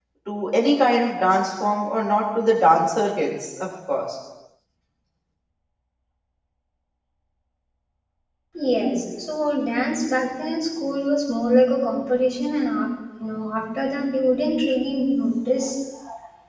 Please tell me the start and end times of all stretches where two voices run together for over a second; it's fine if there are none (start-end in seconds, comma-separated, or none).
none